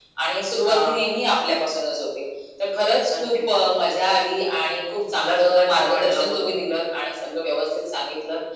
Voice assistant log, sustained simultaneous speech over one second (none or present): present